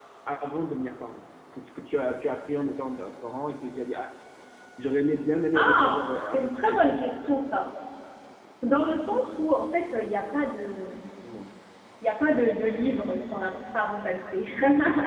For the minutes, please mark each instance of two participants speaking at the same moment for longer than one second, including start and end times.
5.5-6.8

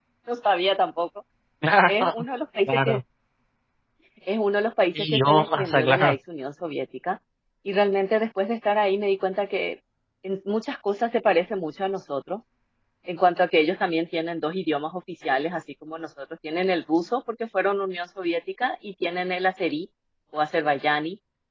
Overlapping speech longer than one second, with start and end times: 5.0-6.2

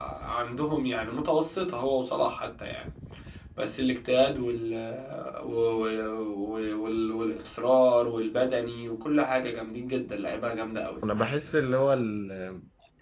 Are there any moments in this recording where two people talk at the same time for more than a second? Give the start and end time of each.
none

